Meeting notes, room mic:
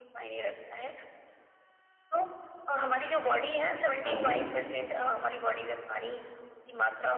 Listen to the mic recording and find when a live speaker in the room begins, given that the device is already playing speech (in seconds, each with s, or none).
4.0 s